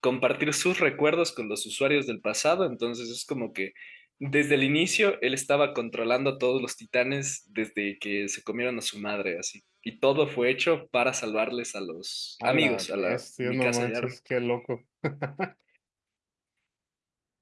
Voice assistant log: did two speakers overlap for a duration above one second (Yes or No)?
Yes